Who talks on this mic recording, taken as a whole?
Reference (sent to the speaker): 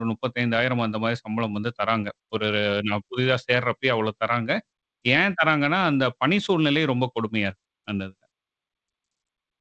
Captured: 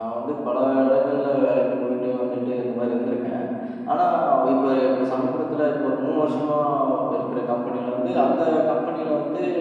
user only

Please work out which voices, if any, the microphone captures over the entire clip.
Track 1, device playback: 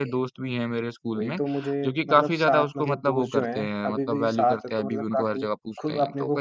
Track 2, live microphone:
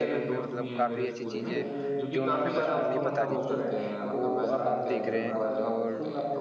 both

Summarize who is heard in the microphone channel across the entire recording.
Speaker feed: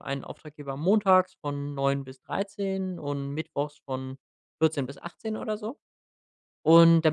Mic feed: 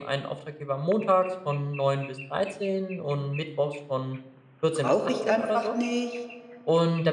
both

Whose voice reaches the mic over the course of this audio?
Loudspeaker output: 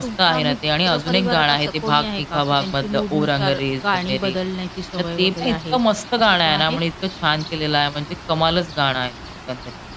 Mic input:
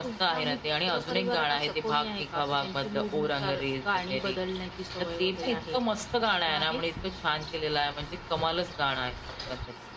echo only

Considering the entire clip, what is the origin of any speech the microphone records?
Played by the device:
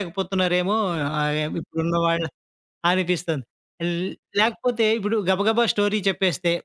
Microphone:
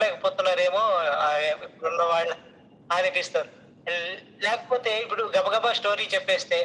echo only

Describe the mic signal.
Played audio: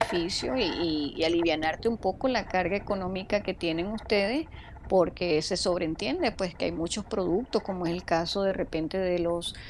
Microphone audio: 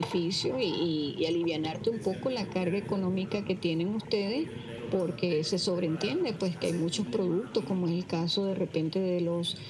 both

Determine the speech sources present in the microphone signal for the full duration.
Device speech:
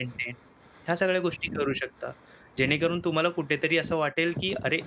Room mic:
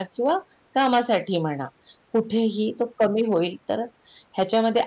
user only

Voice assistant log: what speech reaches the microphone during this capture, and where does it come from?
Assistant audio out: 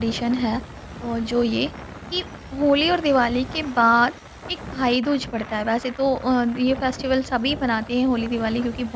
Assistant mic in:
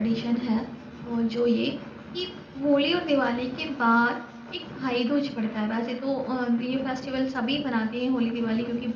echo only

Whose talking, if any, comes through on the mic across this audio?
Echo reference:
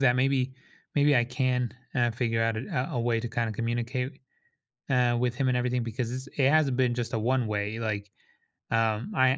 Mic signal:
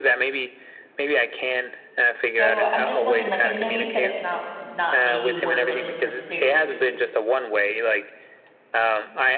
both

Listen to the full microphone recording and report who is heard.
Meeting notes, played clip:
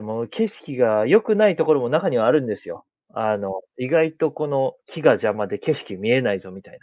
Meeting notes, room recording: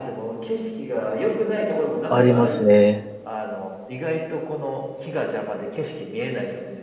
both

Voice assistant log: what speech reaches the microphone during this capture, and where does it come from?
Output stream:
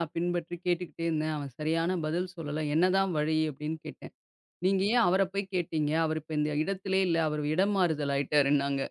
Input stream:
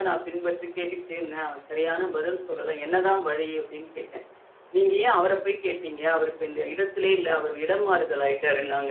echo only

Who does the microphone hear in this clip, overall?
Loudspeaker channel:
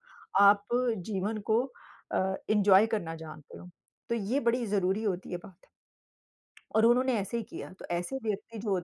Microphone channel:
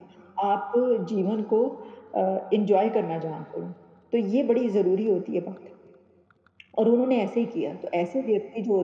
echo only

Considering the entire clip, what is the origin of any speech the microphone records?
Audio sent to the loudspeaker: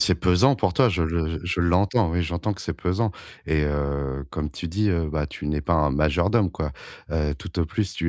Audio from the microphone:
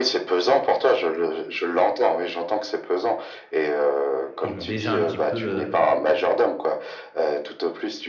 both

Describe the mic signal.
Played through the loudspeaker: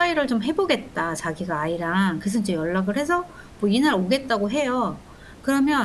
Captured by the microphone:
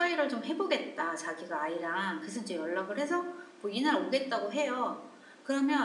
echo only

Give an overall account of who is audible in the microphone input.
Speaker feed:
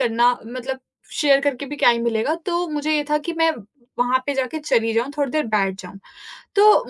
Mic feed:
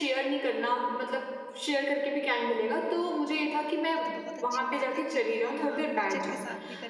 both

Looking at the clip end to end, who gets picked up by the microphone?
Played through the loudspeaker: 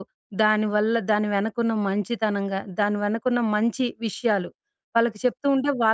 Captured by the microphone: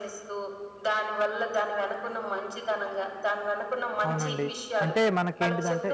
both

